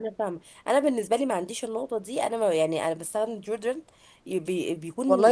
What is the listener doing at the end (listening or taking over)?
taking over